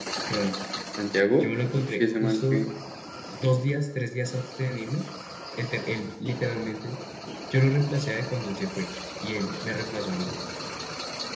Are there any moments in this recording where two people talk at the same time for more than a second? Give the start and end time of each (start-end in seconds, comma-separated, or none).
1.4-2.7